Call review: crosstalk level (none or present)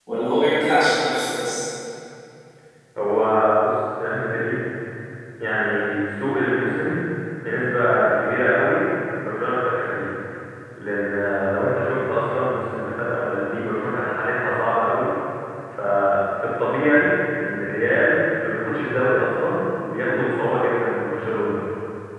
none